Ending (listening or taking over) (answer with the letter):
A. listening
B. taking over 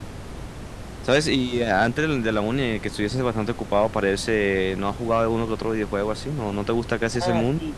B